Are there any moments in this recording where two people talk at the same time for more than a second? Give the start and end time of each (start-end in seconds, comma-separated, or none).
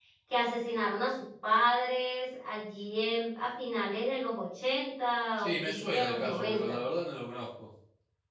5.4-6.8